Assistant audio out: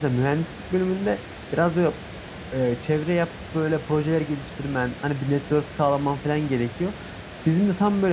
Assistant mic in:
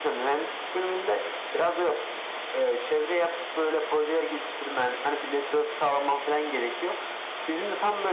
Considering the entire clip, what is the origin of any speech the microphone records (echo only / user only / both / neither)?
echo only